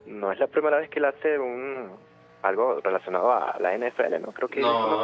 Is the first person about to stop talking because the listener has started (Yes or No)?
Yes